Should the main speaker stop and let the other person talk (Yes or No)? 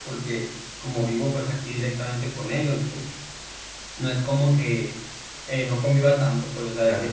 No